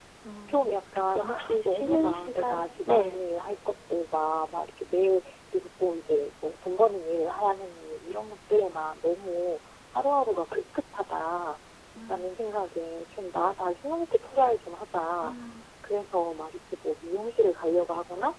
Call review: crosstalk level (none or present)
present